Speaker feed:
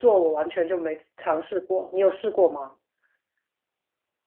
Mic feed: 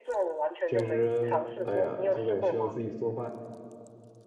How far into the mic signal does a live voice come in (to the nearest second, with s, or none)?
1 s